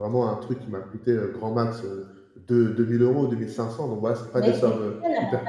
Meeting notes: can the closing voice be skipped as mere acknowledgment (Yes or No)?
No